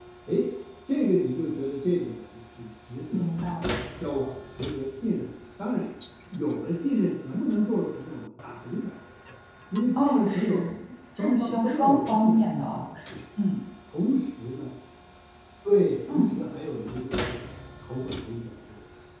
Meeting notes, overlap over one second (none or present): present